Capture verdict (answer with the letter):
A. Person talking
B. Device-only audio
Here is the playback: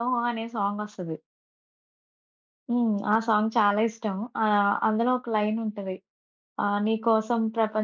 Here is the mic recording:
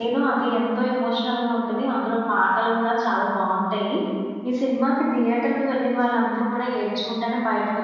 A